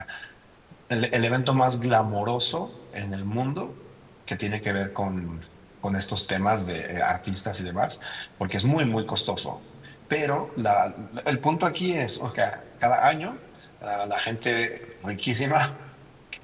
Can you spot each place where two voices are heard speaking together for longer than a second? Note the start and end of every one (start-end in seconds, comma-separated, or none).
none